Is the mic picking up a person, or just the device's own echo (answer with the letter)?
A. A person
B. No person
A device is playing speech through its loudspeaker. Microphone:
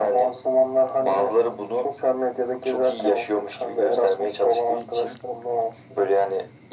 B